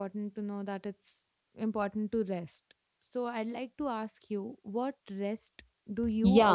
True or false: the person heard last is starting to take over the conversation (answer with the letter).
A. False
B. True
B